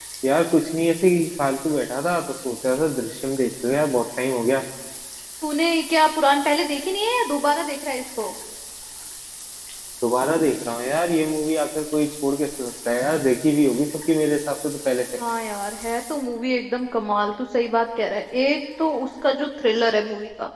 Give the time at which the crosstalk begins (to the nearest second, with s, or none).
none